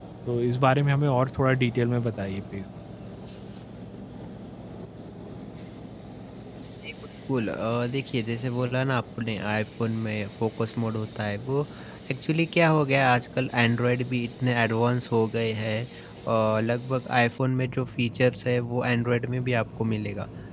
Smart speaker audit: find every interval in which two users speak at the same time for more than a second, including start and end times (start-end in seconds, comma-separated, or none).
none